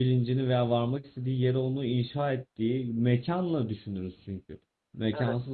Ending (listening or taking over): listening